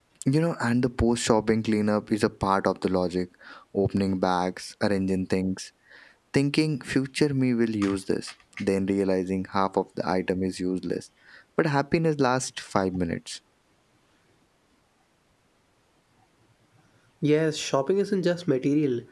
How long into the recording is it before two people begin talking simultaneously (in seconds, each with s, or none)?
none